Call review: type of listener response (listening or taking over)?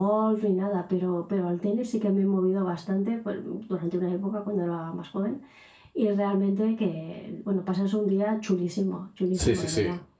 taking over